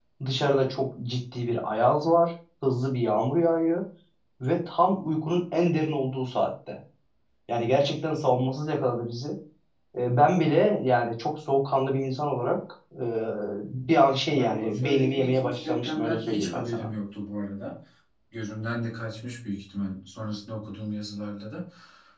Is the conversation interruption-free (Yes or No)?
No